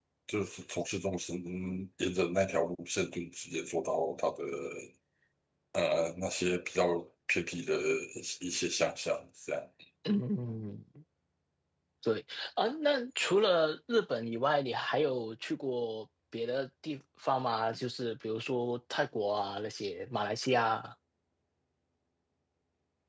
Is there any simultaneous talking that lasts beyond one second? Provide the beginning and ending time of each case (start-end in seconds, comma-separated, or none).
none